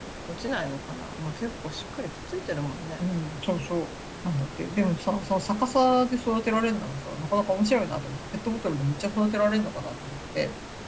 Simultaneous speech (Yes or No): No